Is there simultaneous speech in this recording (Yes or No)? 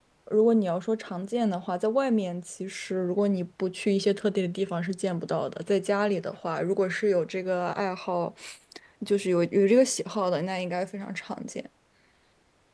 No